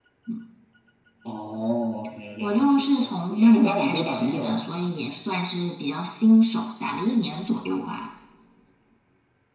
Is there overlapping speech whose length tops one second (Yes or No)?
Yes